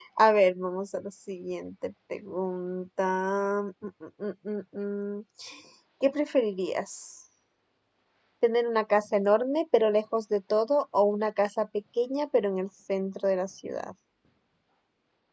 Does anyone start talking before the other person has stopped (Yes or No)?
No